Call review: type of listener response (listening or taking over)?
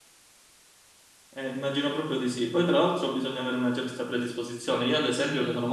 listening